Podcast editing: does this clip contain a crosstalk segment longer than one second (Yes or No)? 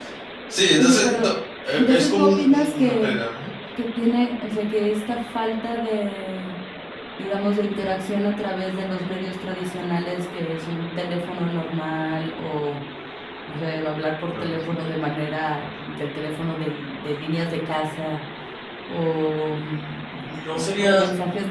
Yes